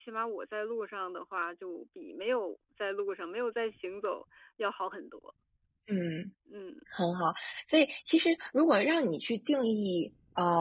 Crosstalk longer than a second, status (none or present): none